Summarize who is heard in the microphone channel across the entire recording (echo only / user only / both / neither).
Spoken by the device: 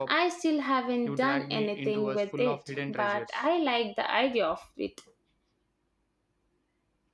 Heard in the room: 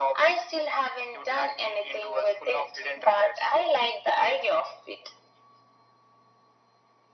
echo only